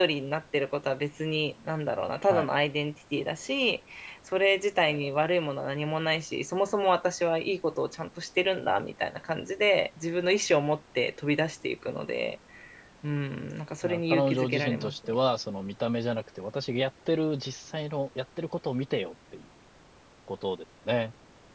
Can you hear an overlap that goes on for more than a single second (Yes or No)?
Yes